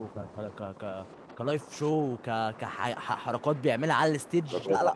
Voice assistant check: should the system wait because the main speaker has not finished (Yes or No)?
No